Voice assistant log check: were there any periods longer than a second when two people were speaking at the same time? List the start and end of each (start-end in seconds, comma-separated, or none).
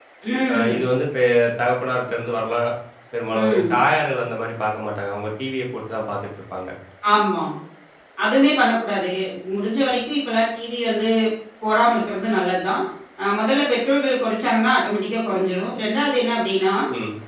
none